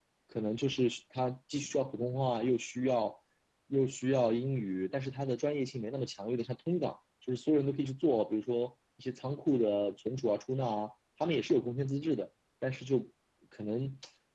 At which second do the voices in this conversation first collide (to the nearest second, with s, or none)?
none